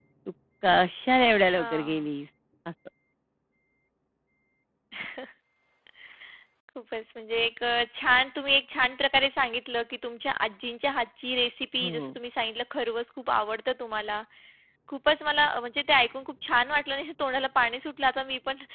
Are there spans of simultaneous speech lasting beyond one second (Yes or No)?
No